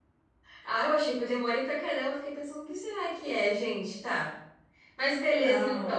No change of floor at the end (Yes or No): No